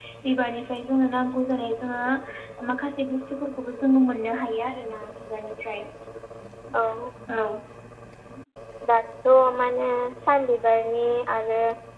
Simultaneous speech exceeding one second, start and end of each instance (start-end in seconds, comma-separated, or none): none